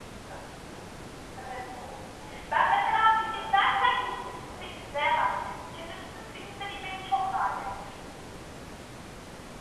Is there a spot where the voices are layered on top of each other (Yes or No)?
Yes